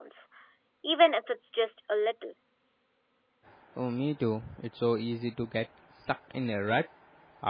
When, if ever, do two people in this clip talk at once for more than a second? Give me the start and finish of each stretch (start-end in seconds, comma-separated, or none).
none